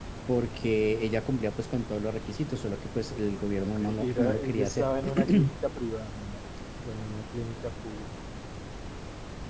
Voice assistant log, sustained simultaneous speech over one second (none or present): present